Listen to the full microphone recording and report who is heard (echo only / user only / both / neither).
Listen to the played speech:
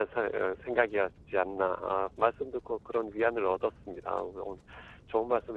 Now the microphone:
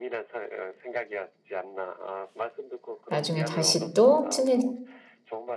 both